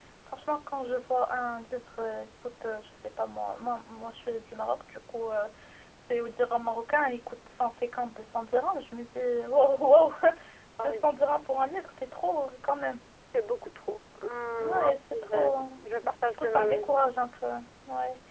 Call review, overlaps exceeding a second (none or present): present